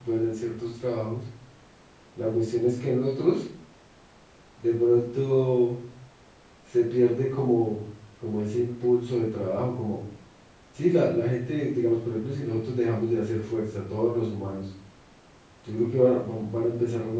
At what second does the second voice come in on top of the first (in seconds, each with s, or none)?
none